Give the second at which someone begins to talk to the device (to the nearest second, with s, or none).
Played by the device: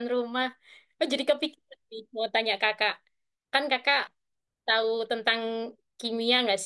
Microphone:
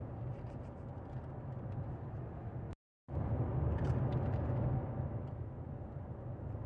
none